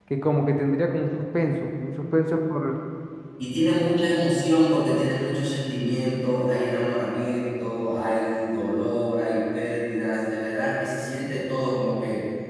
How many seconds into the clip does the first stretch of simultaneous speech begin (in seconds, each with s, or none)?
none